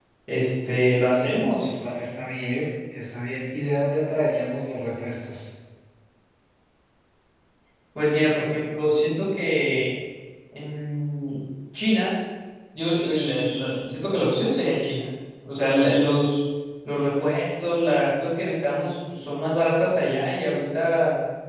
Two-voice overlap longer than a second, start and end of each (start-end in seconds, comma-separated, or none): none